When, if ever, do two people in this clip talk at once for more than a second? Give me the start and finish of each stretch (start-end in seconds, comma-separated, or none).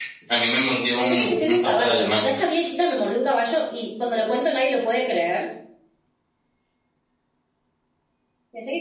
1.0-2.2